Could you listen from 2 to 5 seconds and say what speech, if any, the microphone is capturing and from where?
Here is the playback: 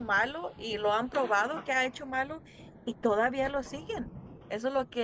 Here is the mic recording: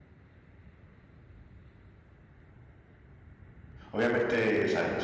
user only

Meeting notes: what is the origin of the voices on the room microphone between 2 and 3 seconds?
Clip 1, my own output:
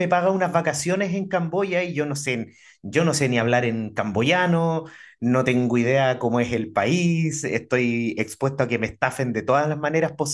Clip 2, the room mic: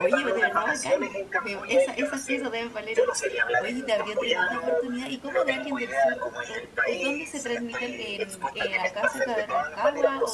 both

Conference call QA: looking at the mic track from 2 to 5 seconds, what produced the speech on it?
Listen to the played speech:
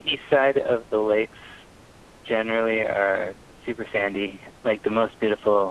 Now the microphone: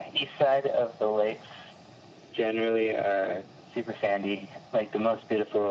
echo only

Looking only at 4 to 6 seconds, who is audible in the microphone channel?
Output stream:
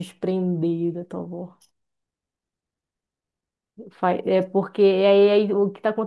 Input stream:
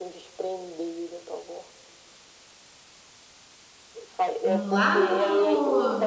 both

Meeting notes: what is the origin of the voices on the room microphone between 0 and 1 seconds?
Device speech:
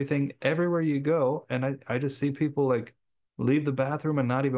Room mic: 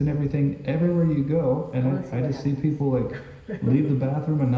echo only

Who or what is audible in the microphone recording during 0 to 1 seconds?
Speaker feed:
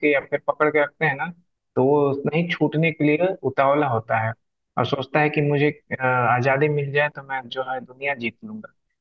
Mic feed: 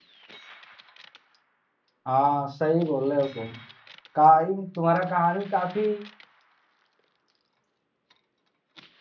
neither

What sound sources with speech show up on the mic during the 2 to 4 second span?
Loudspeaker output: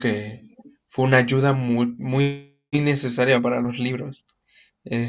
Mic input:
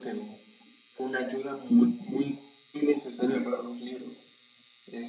echo only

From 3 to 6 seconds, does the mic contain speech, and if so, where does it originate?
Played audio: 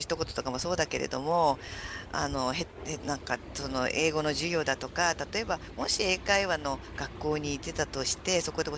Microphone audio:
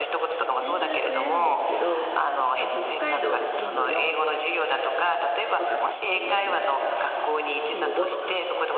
both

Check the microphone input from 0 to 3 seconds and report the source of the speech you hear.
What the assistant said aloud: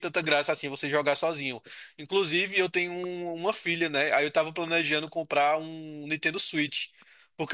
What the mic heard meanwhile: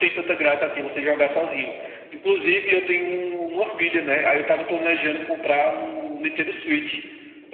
echo only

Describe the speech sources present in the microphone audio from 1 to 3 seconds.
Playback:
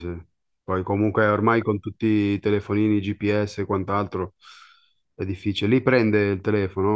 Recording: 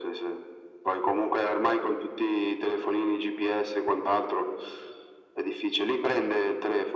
echo only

